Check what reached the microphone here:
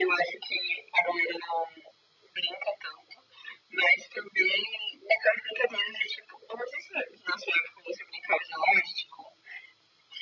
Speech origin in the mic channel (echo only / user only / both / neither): echo only